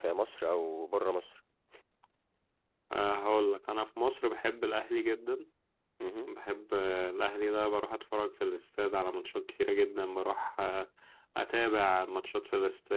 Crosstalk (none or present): none